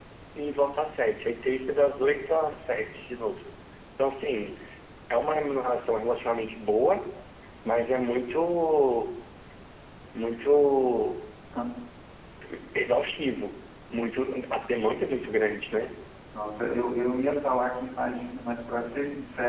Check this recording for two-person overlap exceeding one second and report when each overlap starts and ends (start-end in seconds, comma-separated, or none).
none